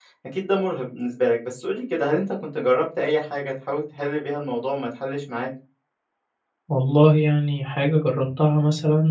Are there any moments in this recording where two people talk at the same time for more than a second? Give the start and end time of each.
none

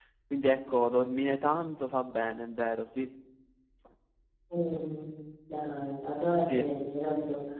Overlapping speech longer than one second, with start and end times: none

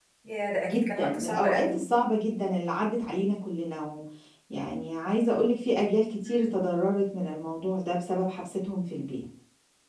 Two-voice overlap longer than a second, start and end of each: 0.6-1.8

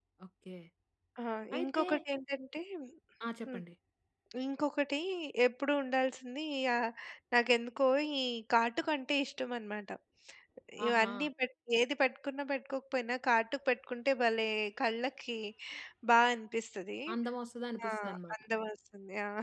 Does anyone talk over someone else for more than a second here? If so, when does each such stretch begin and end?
none

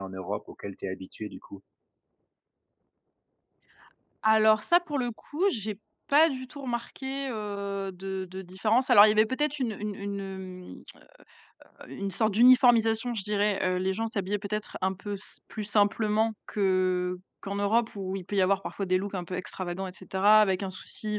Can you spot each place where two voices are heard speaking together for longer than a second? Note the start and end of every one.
none

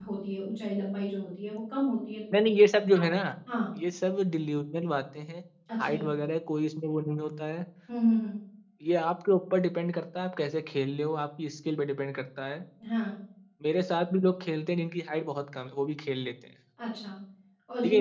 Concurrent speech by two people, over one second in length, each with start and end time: none

